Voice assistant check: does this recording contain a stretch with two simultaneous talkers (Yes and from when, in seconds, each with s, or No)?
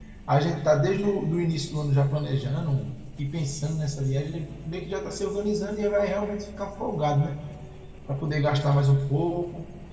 No